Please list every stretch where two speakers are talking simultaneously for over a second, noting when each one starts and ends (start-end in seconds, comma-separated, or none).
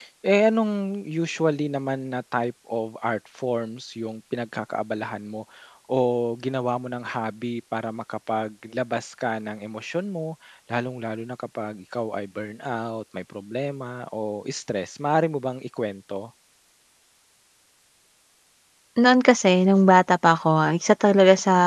none